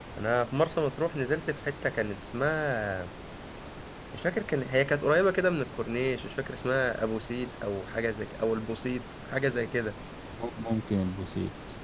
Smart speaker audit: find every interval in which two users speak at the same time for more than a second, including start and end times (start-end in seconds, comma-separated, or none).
none